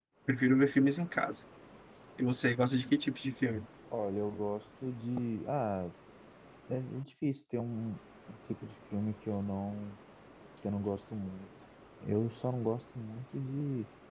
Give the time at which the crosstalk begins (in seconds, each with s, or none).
none